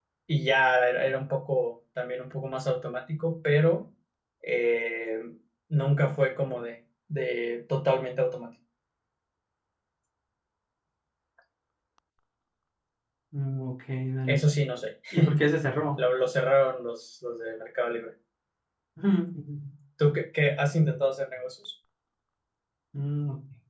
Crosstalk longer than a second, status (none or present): none